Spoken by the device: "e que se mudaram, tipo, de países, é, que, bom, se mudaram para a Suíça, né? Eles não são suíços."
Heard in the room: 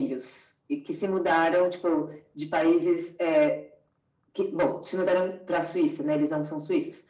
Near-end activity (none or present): none